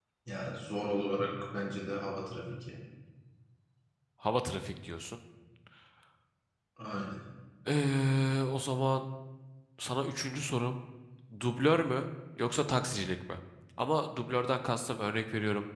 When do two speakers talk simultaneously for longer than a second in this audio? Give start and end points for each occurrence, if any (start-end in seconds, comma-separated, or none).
none